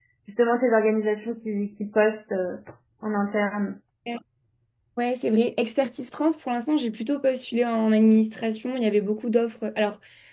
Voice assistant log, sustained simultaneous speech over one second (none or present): none